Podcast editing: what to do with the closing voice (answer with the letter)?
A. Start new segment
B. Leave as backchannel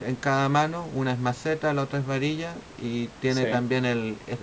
B